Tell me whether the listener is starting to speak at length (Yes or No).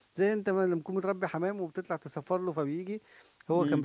No